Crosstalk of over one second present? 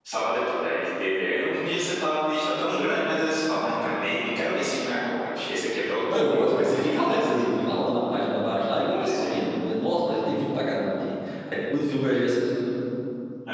Yes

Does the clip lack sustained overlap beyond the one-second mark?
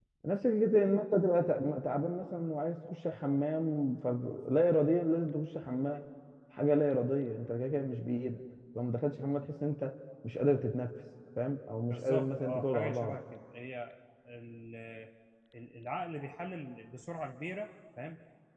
No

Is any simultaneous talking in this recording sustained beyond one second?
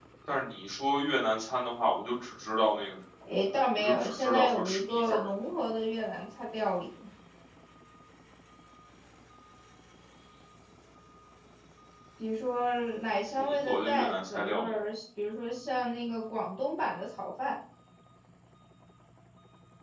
Yes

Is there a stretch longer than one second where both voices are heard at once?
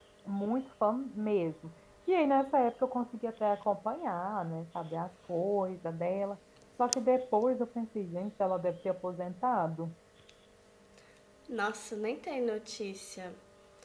No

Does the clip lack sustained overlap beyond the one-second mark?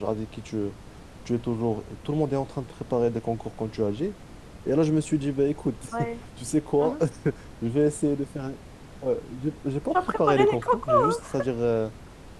No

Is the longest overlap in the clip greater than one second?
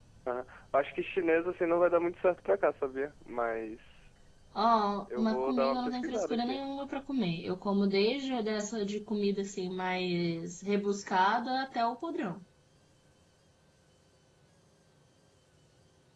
Yes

